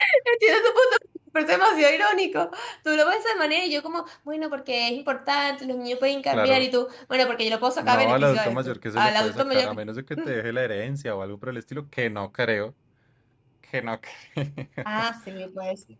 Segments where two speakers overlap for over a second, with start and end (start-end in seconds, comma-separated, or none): 7.8-9.7